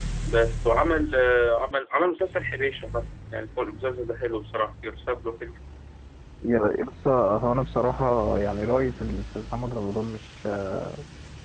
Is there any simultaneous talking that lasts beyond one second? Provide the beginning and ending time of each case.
none

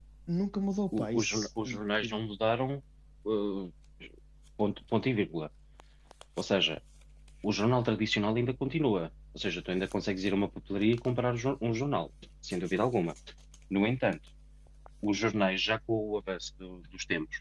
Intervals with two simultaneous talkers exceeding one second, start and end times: 0.9-2.2

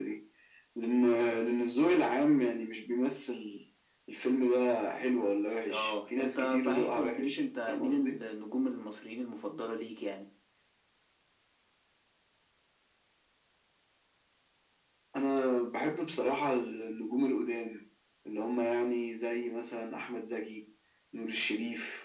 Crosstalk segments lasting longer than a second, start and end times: 5.7-8.2

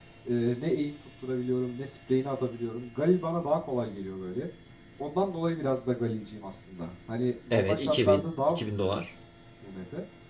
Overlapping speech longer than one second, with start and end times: 7.5-8.8

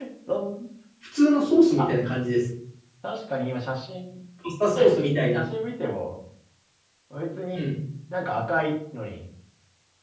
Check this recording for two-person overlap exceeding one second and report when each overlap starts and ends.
none

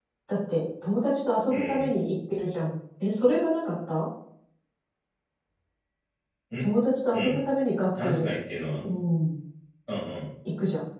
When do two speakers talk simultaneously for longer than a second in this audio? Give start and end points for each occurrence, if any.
none

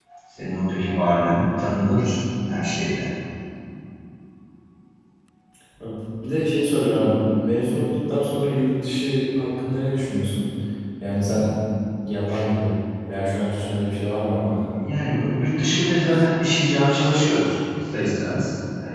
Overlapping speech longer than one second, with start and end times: none

